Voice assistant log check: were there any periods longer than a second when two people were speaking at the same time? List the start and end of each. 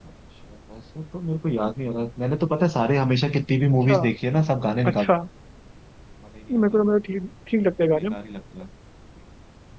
none

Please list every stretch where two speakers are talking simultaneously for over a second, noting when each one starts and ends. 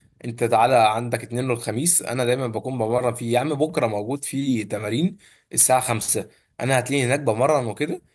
none

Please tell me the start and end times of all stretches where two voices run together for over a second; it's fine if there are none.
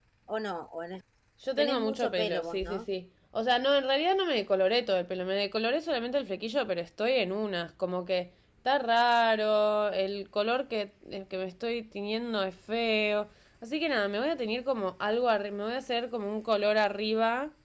1.6-2.9

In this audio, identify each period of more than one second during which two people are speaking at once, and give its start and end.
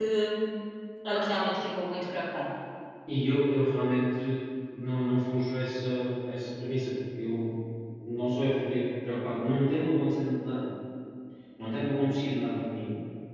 none

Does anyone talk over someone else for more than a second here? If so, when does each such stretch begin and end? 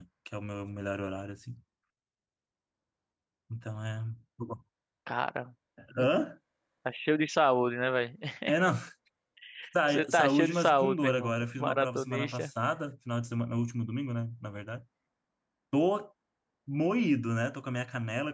9.9-12.5

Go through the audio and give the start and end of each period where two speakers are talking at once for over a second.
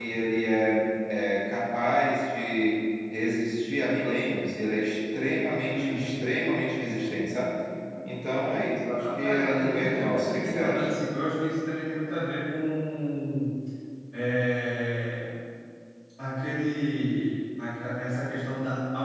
9.0-10.9

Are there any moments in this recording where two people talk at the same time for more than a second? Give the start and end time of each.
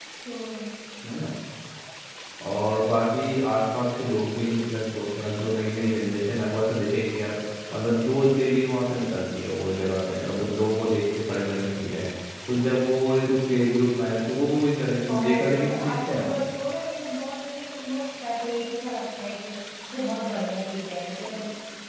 15.1-16.3

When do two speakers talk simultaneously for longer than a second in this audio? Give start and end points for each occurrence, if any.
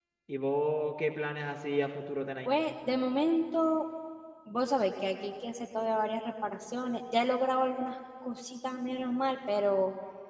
none

